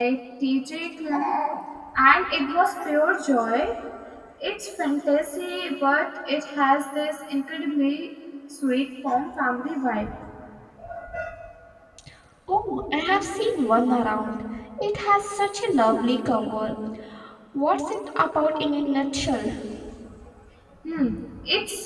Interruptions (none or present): none